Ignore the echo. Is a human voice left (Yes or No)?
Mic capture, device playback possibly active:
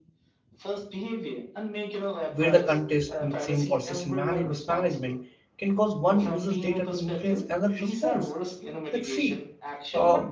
Yes